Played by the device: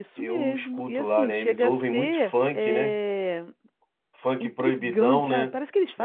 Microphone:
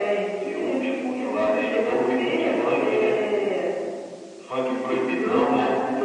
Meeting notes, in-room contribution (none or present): none